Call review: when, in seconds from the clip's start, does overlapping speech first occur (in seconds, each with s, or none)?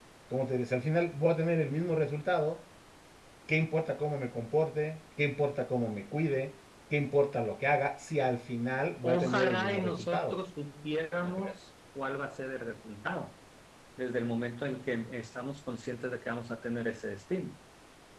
9.0 s